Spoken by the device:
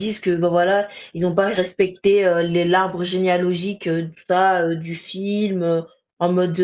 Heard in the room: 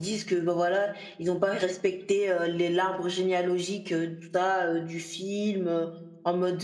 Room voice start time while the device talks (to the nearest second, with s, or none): none